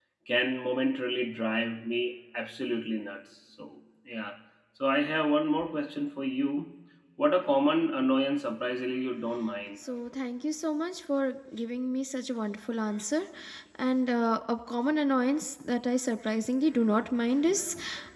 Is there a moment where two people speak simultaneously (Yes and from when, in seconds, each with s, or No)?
No